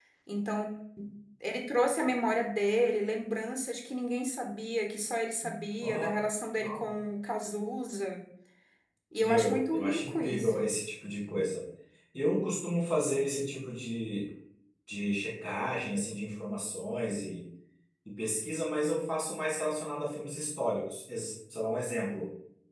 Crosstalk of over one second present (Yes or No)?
Yes